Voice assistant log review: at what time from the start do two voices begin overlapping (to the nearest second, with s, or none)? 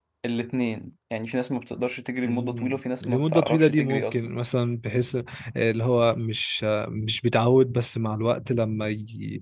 2 s